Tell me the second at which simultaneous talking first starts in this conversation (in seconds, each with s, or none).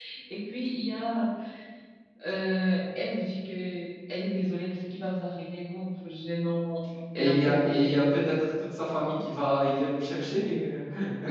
7.2 s